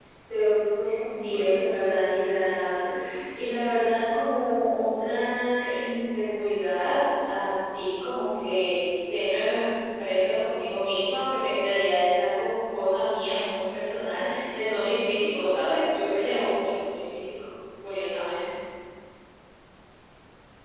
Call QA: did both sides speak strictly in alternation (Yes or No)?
No